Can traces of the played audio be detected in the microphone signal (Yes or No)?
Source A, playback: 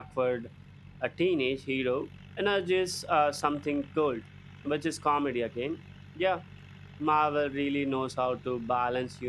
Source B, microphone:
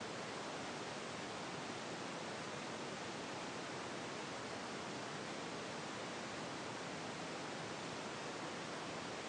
No